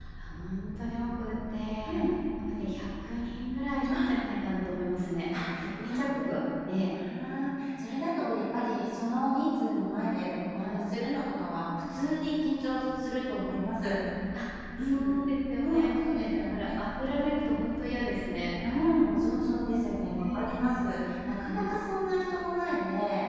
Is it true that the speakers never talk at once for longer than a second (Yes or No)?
No